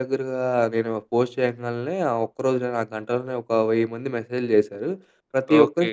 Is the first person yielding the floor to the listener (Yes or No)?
No